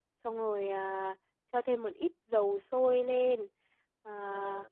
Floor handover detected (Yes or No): No